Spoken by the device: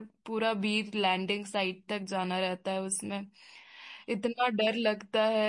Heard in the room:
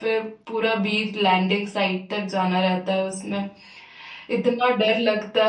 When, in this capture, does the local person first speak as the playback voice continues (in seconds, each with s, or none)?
none